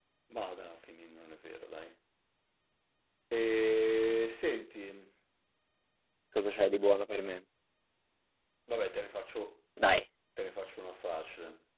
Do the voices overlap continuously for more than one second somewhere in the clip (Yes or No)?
No